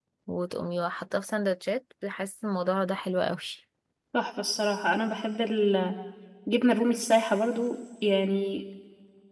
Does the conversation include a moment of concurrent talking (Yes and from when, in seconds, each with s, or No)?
No